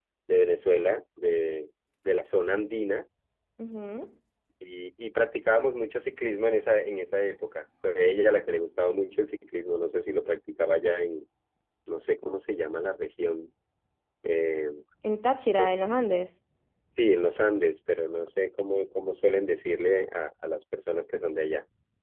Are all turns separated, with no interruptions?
Yes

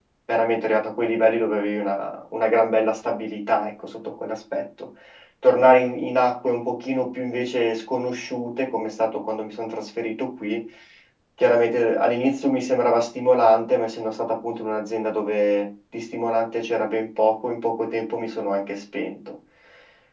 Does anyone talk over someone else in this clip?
No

